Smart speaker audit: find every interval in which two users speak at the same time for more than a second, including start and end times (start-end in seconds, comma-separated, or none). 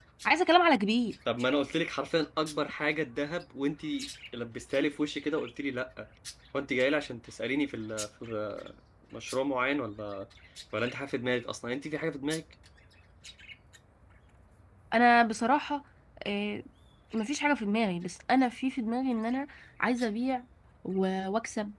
none